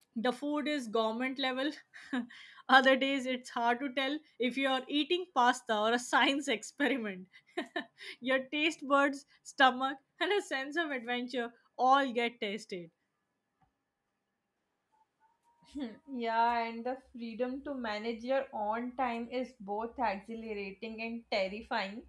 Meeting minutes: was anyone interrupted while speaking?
No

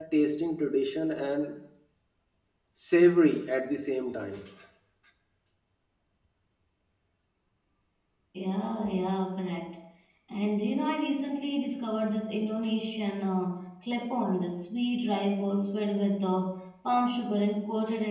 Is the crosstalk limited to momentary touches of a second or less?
Yes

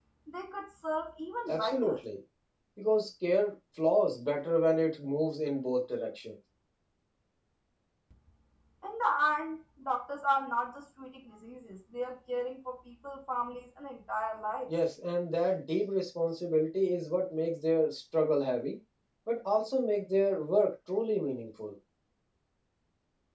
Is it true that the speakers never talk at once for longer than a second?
Yes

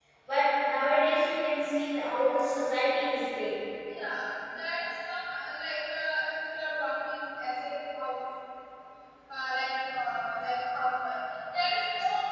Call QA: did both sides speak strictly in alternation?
Yes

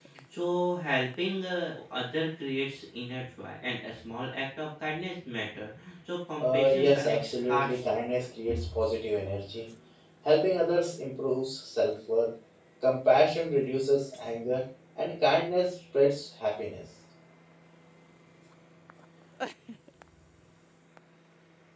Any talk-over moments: Yes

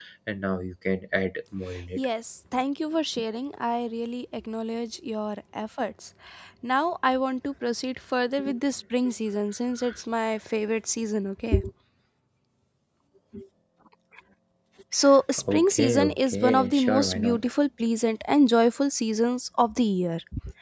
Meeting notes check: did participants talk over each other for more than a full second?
Yes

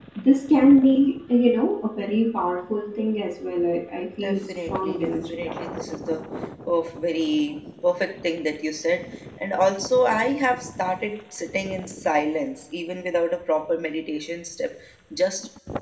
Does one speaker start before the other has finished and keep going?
Yes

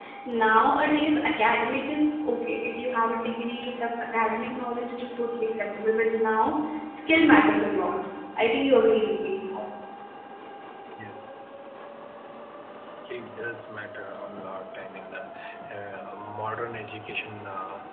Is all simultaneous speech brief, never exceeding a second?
Yes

